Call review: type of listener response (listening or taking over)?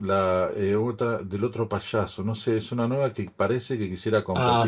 taking over